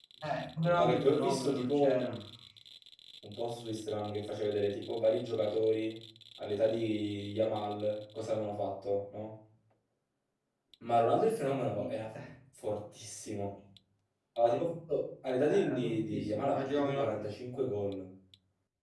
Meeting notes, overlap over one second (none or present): present